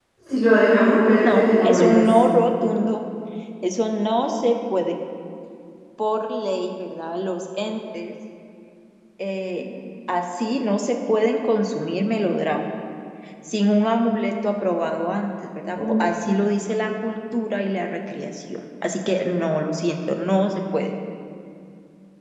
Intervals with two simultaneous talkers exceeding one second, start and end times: 0.7-2.1

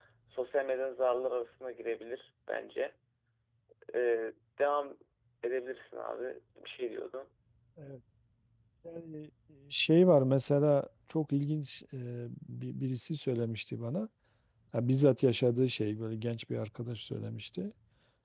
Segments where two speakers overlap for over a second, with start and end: none

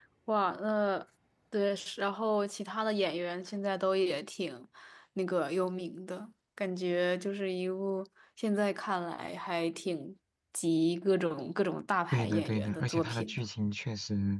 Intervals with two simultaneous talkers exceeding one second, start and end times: 12.1-13.4

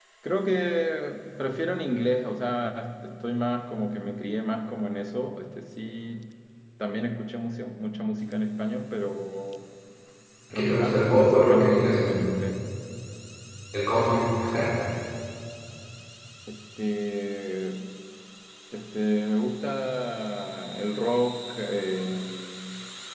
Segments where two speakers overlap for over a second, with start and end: 10.5-12.2

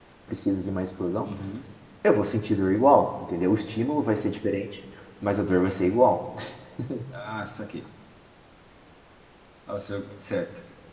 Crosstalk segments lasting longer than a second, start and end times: none

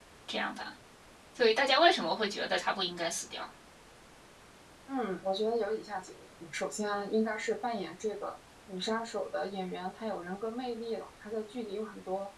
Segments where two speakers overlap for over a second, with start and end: none

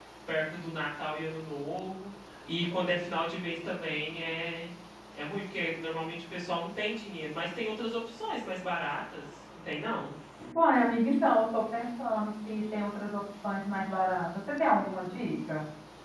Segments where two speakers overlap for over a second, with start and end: none

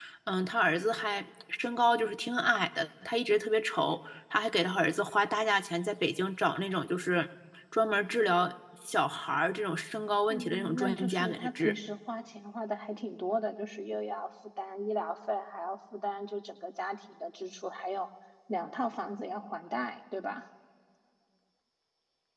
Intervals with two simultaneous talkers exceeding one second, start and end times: 10.3-11.7

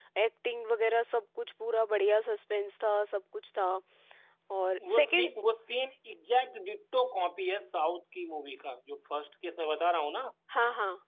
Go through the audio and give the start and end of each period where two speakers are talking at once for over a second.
none

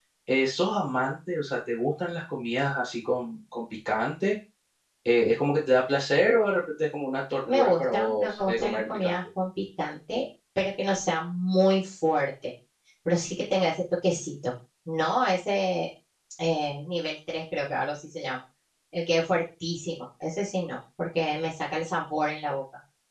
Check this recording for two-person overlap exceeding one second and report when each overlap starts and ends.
7.5-9.1

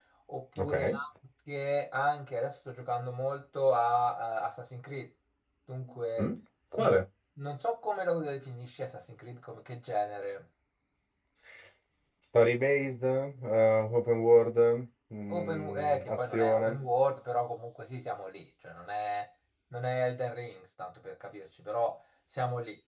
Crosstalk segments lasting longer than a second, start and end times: 15.3-16.8

